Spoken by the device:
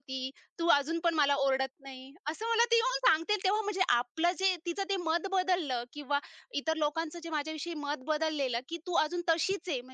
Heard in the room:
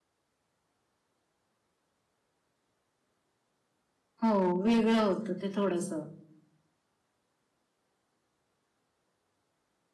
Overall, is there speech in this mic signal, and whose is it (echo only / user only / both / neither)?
user only